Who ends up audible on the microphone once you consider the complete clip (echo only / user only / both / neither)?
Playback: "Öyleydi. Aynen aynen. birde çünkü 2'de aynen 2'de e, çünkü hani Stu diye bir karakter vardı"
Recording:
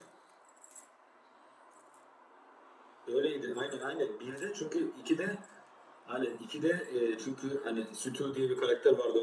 echo only